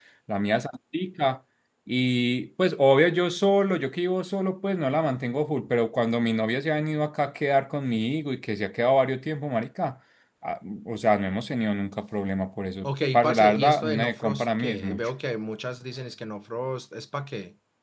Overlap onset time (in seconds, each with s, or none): 12.8 s